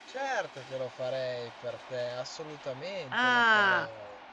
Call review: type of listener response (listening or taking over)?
taking over